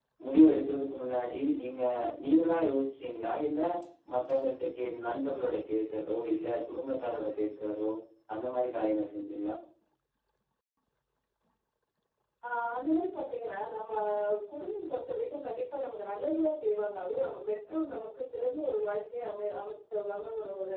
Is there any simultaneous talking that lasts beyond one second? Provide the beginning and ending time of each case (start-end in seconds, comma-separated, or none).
none